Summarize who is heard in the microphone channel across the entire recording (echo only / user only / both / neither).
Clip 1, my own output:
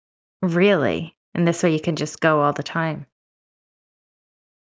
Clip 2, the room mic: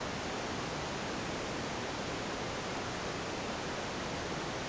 neither